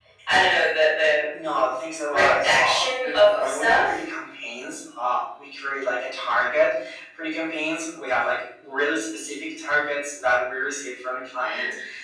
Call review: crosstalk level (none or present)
present